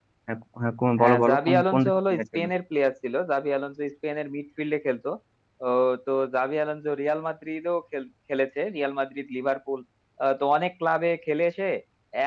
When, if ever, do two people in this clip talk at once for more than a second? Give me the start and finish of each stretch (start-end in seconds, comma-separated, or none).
1.0-2.4